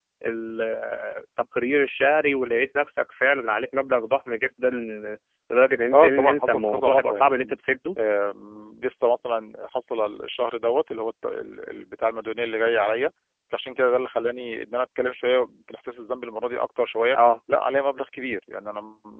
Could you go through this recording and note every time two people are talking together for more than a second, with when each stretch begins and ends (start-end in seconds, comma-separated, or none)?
5.9-7.5